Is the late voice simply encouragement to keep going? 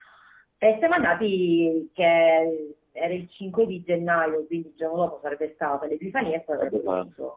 Yes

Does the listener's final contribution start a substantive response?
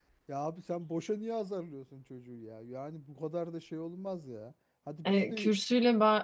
Yes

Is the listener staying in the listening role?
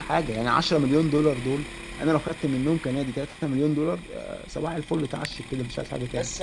No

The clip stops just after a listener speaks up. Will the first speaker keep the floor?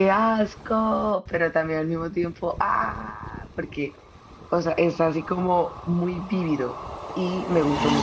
Yes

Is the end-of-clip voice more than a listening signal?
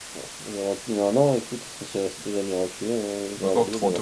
Yes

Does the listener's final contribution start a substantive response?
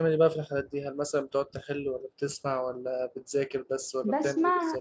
Yes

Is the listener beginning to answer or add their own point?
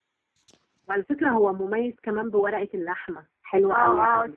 Yes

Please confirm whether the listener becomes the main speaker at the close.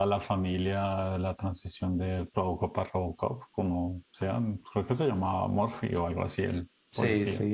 Yes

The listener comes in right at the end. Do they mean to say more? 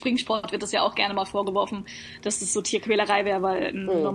No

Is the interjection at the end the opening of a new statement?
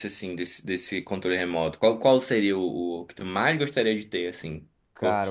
Yes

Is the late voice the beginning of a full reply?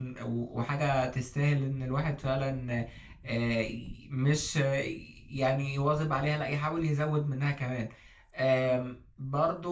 No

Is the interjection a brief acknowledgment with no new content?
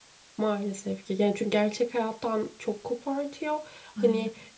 Yes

